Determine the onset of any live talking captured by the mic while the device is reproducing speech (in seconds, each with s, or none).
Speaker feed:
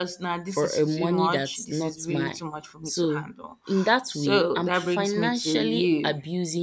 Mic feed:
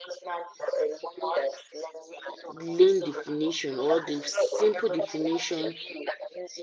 2.5 s